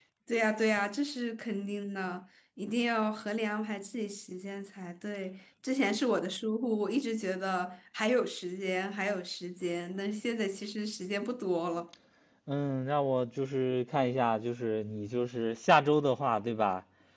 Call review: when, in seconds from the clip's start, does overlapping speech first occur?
none

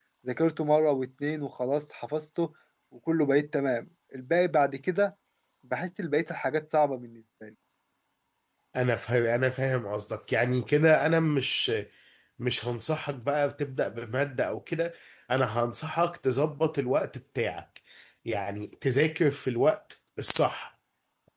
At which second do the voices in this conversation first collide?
none

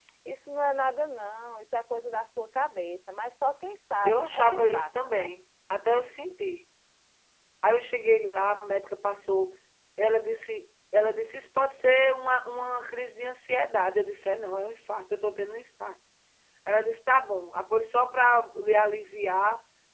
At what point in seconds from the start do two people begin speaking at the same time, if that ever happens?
4.0 s

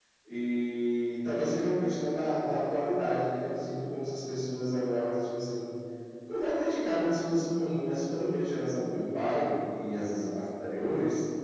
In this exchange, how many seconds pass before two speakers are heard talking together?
none

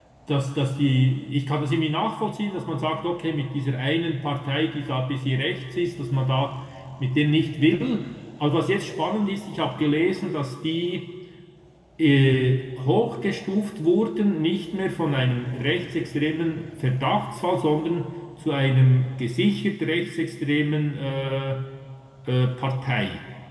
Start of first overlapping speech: none

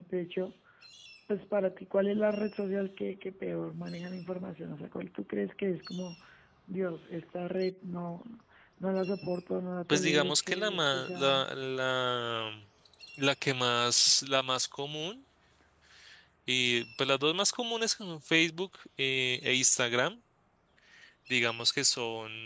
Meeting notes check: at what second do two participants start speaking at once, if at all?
9.9 s

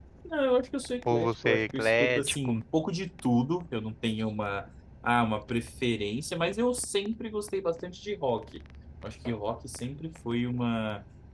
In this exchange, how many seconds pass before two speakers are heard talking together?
1.1 s

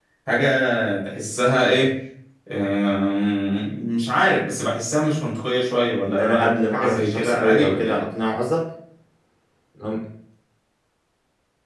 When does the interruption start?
6.0 s

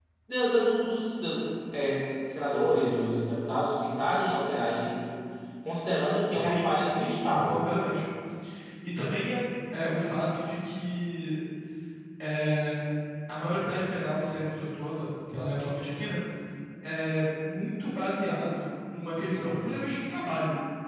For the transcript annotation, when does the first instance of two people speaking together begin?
6.3 s

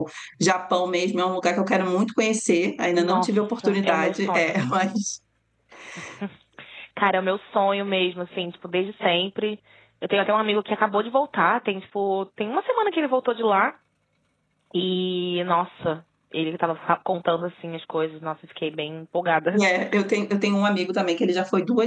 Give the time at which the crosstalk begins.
3.0 s

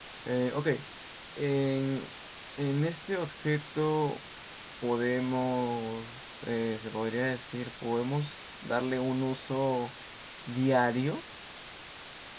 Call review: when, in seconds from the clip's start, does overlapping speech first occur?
none

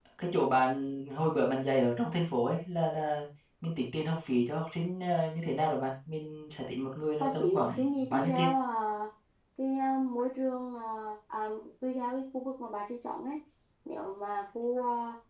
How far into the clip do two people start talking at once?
7.2 s

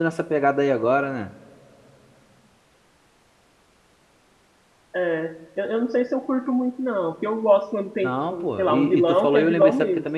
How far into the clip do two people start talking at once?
8.0 s

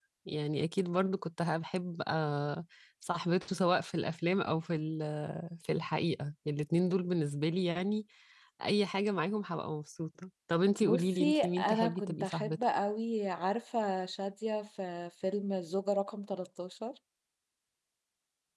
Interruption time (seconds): 10.8 s

